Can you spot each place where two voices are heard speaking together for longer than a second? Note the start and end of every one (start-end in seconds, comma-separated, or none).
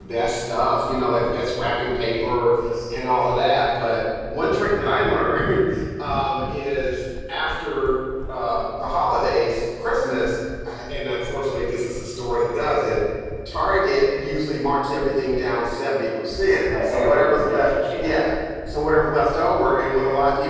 16.8-18.2